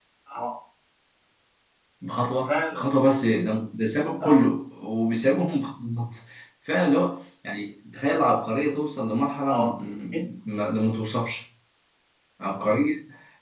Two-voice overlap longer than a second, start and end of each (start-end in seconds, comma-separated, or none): none